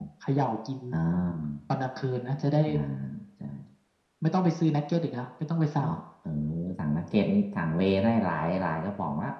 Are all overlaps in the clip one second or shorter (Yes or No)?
Yes